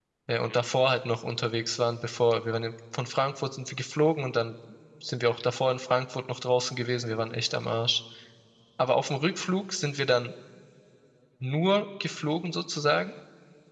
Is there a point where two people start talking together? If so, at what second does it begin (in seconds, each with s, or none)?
none